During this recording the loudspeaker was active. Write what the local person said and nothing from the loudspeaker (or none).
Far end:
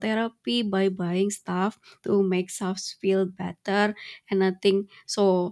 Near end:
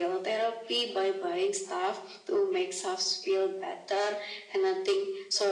none